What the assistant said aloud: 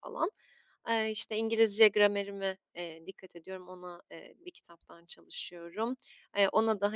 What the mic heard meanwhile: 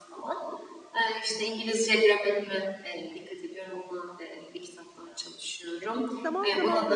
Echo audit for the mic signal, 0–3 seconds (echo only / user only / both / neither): echo only